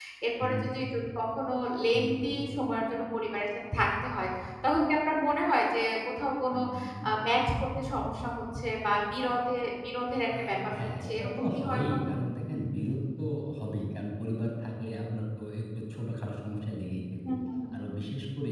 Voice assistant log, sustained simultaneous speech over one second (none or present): present